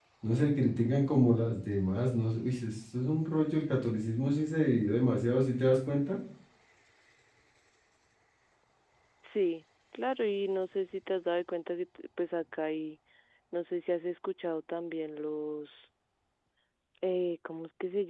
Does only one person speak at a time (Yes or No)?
Yes